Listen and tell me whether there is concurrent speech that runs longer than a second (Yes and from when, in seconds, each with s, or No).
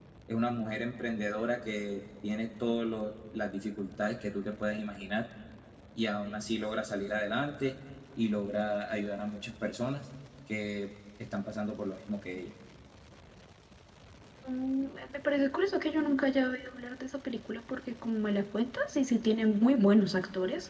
No